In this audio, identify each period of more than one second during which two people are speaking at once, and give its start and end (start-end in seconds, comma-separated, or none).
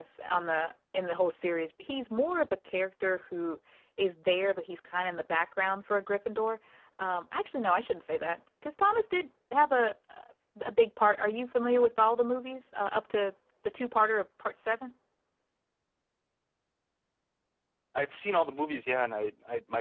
none